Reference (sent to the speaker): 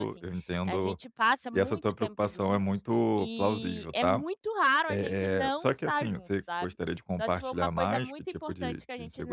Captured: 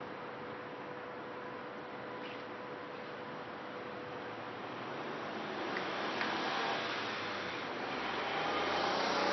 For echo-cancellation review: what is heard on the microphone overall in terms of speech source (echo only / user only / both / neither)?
neither